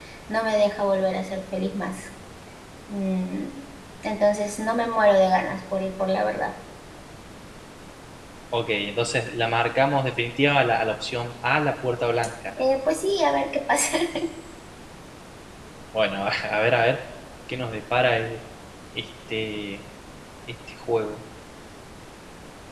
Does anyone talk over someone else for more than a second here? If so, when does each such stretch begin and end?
none

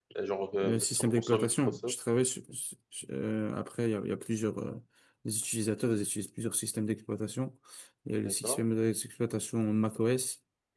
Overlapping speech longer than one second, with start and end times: 0.6-1.9

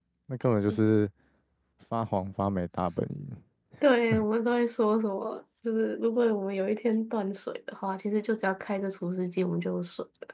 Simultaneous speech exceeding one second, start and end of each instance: none

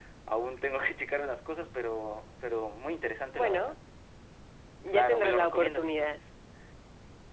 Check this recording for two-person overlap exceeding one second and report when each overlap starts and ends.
4.9-6.2

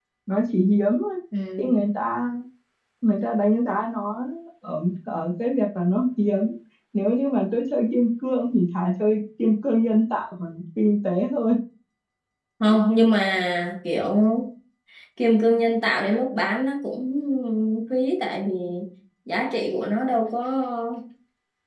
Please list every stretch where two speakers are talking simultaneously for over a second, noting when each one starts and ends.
none

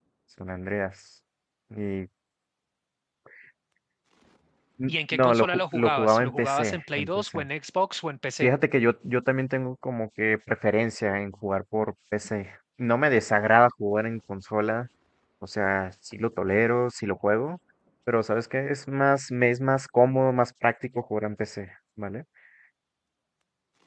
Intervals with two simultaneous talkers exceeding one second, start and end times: 4.9-7.4

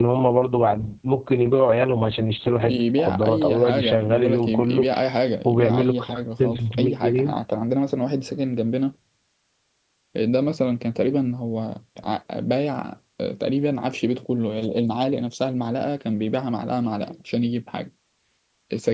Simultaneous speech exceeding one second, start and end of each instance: 2.7-4.9, 5.5-7.3

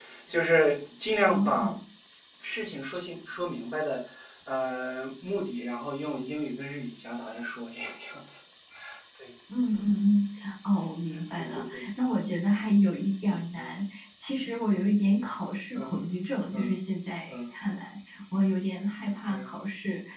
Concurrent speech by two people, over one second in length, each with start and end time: none

